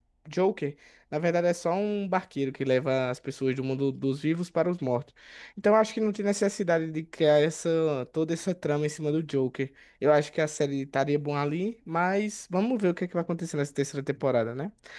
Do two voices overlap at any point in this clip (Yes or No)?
No